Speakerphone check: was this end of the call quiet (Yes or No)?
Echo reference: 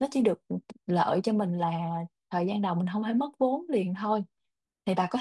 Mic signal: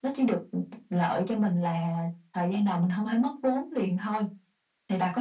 Yes